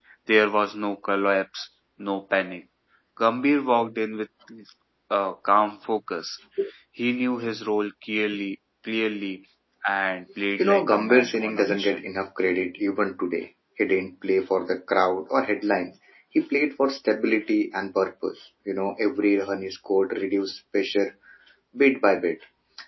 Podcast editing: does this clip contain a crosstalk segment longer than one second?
Yes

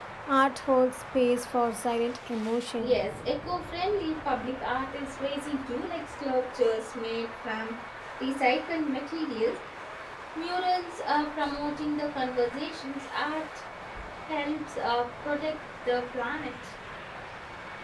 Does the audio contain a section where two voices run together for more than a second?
No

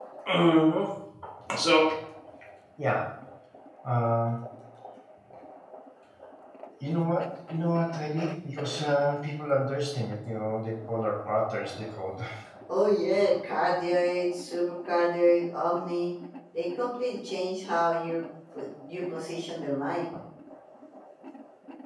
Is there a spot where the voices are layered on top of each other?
No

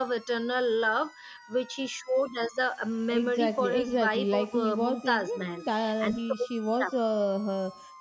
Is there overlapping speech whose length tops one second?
Yes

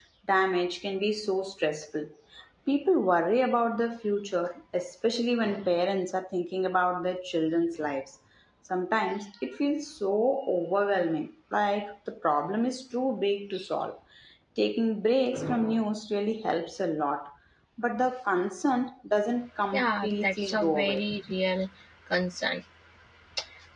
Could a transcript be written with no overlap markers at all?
No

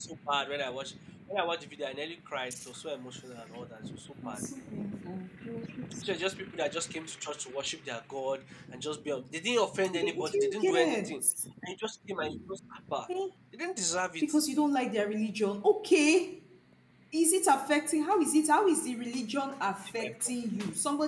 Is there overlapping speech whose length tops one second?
Yes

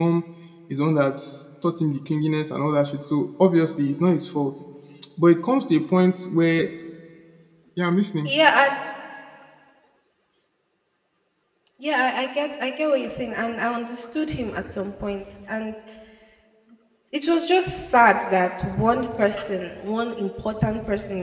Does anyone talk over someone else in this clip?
No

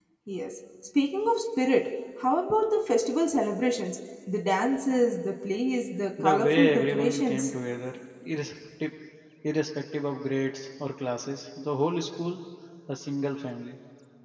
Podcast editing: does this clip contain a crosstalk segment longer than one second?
Yes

